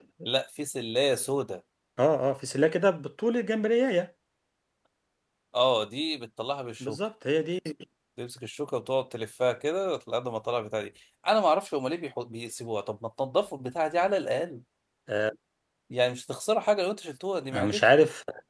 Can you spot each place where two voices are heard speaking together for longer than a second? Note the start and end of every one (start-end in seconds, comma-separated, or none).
none